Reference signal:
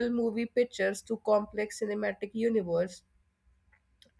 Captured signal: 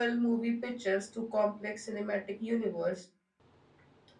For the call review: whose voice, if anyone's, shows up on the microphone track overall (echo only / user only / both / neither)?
echo only